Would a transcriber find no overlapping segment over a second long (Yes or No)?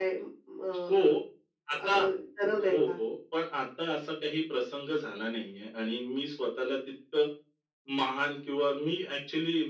Yes